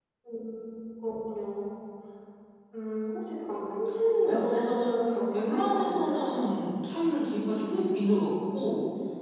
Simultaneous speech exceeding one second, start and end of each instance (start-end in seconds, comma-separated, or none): 4.2-6.3